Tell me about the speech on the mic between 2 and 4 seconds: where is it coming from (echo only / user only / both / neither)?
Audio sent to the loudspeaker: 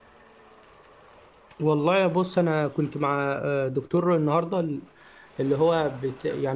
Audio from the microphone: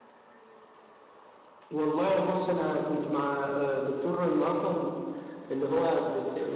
echo only